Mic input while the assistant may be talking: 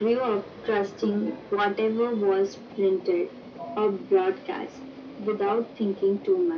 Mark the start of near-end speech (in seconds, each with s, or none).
none